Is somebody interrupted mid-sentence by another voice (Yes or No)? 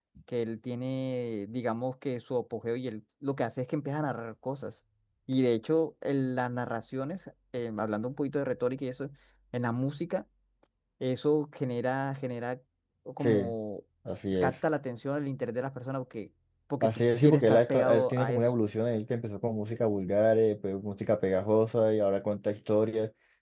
Yes